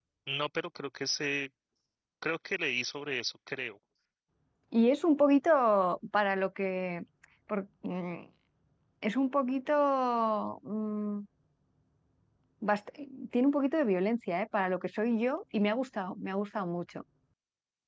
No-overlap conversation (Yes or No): Yes